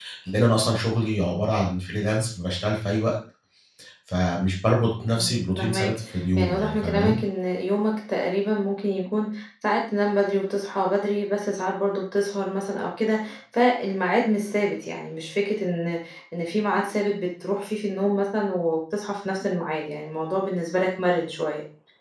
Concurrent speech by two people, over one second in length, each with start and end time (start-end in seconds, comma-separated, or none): 5.1-7.2